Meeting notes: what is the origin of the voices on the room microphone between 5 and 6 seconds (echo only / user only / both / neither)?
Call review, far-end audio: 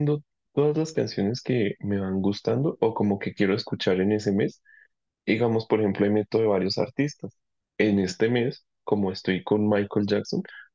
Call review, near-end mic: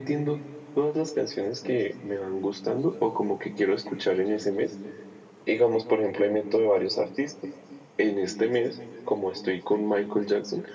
echo only